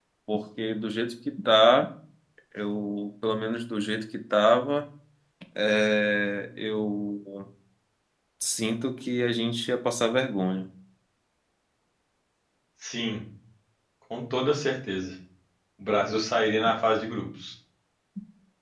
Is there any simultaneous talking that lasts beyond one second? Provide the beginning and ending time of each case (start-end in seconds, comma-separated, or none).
none